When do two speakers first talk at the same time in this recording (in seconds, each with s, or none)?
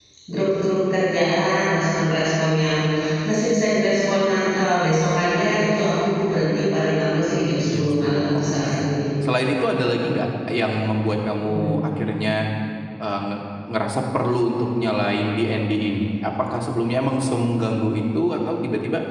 7.7 s